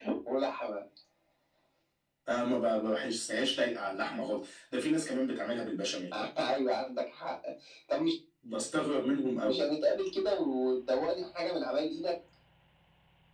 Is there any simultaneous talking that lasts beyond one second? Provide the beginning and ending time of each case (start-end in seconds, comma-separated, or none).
none